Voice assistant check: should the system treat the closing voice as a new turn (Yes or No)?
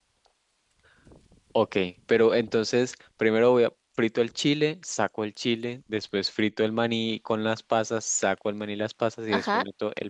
Yes